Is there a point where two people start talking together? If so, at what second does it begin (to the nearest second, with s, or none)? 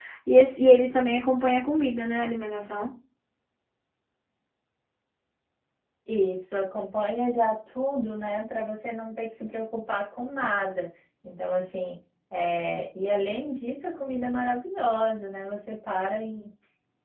none